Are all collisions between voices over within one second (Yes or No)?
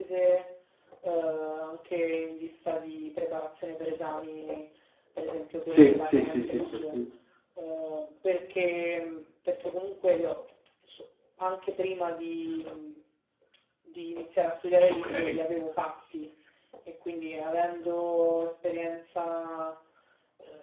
No